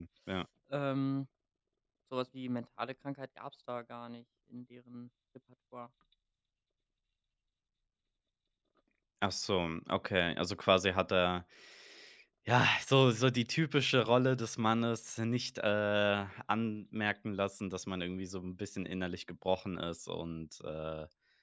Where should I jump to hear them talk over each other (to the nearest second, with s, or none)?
none